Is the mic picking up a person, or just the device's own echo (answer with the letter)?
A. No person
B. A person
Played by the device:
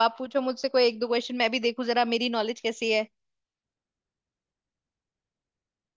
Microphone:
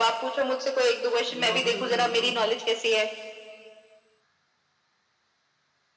B